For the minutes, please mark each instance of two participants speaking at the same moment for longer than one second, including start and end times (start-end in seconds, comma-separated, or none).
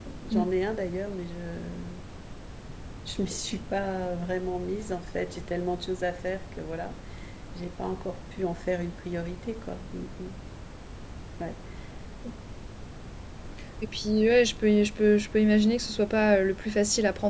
none